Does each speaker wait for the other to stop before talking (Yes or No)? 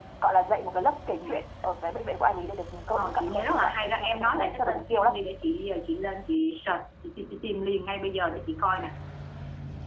No